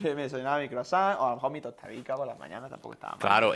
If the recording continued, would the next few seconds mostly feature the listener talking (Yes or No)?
Yes